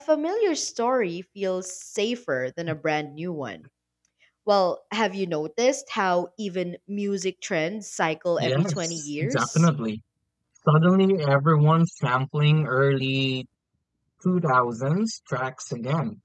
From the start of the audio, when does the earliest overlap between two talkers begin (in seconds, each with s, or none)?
8.4 s